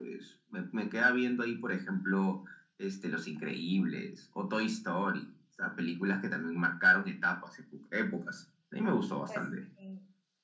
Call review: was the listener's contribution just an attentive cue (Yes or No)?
No